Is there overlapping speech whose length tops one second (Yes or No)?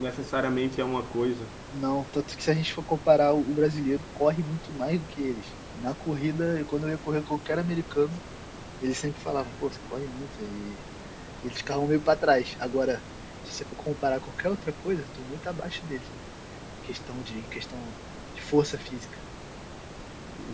No